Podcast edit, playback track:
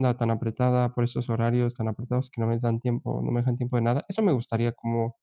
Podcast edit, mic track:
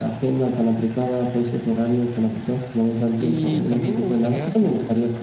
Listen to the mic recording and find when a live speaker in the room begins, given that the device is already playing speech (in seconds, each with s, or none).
3.1 s